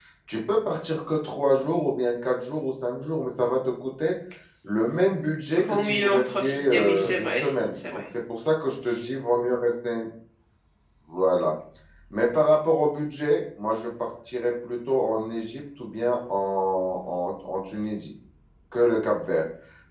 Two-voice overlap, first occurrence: 5.5 s

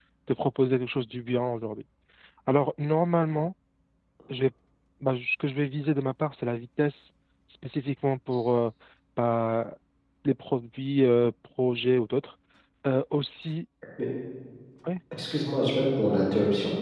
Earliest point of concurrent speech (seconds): none

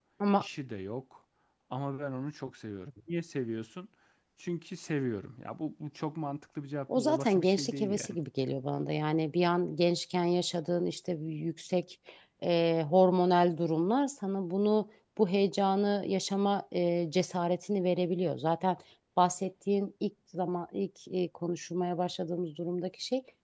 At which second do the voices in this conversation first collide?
6.9 s

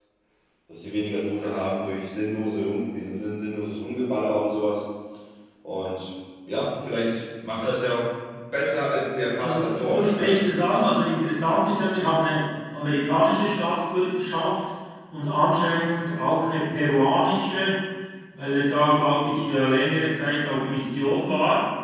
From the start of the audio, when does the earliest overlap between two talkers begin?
9.4 s

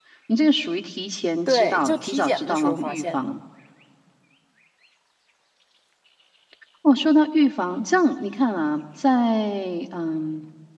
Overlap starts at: 1.5 s

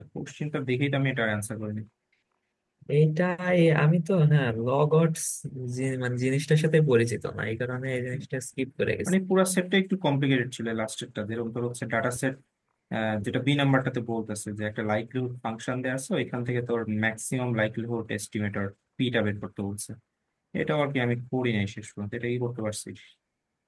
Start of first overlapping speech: none

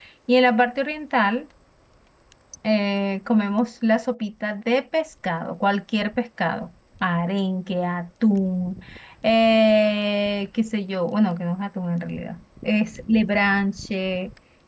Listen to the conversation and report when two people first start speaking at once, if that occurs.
none

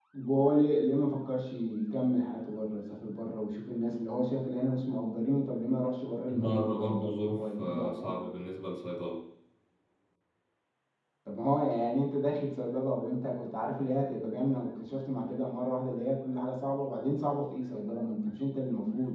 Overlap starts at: 6.3 s

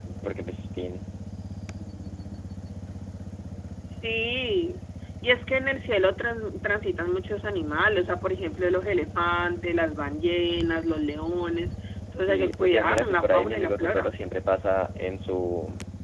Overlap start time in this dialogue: 12.2 s

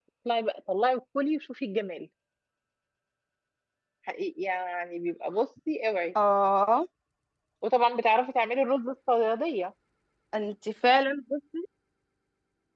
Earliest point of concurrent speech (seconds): none

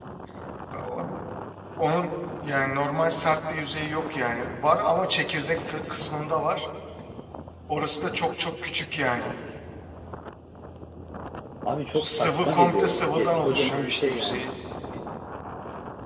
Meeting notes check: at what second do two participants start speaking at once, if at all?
11.9 s

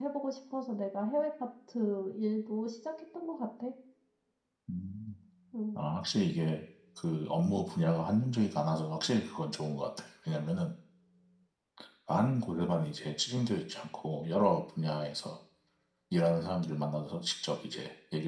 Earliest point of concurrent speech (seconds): none

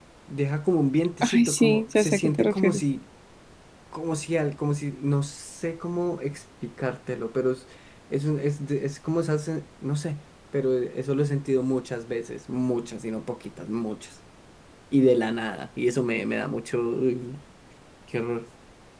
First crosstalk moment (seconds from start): 1.2 s

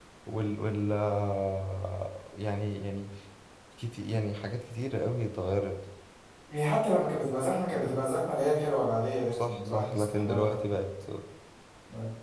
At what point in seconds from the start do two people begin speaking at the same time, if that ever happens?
9.3 s

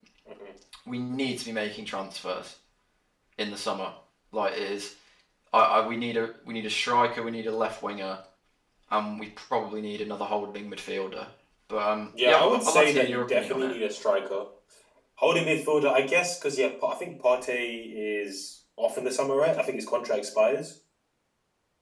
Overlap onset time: 12.3 s

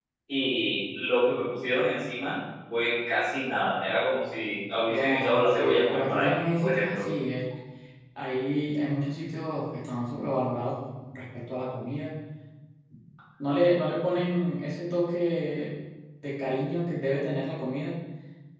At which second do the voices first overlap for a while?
4.9 s

